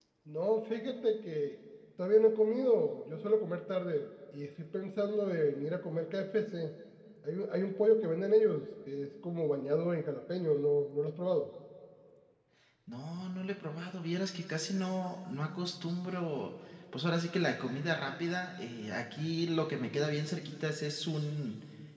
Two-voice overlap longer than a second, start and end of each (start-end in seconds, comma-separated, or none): none